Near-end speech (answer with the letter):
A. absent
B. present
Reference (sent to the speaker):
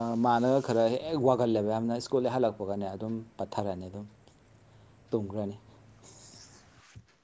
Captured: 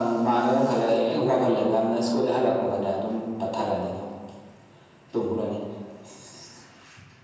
A